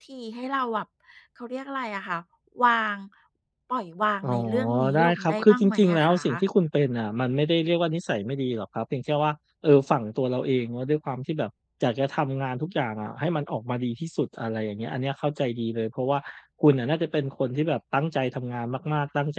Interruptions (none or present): present